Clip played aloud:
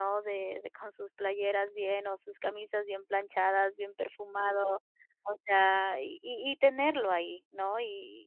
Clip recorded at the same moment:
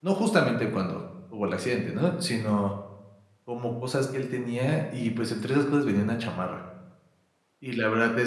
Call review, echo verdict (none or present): none